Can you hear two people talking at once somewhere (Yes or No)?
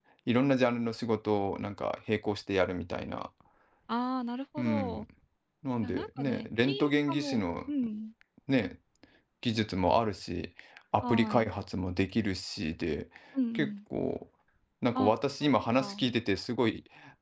Yes